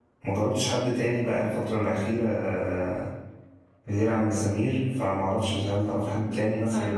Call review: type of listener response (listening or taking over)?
taking over